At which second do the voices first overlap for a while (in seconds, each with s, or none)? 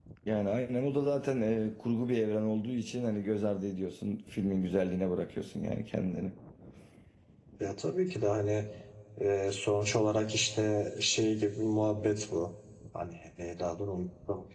none